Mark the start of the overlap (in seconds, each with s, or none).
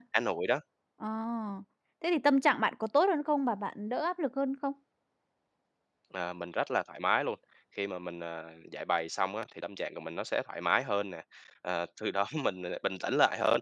none